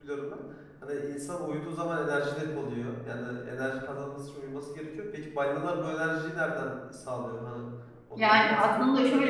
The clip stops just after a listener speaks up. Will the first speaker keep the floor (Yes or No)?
No